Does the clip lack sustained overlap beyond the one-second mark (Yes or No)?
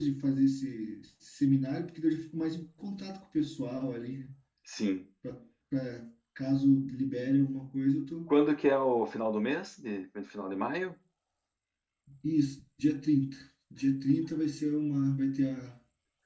Yes